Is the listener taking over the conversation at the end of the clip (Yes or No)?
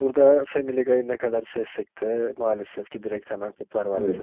Yes